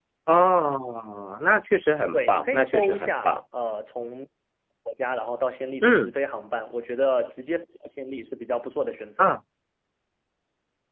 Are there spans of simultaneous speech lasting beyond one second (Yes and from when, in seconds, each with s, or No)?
Yes, from 2.1 s